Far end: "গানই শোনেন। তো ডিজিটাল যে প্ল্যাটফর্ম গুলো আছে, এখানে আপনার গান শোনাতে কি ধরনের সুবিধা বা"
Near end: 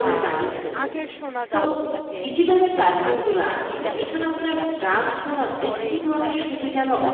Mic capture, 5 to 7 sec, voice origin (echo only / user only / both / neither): both